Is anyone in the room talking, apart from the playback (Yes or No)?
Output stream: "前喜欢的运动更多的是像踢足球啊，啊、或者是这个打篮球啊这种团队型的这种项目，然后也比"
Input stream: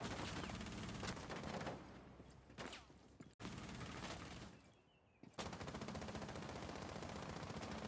No